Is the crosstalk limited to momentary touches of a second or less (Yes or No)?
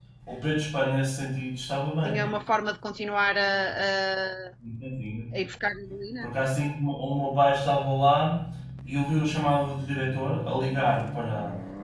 Yes